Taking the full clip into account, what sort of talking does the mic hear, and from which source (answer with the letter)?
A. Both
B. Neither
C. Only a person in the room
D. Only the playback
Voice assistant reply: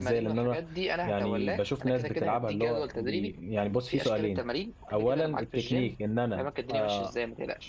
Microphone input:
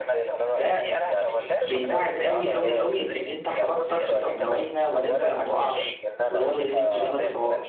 A